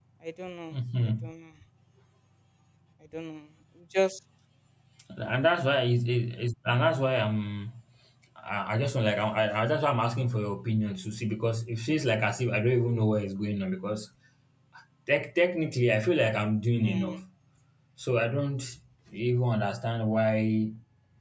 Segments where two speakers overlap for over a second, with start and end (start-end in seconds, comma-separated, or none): none